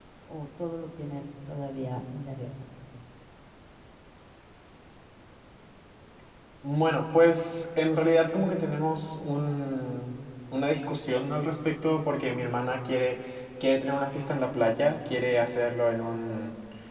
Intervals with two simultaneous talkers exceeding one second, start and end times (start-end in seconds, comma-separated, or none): none